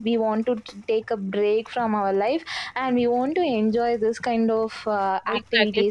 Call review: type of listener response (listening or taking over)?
taking over